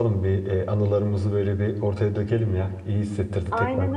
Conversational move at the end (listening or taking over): taking over